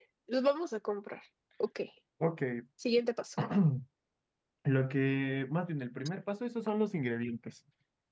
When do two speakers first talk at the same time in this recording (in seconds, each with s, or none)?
none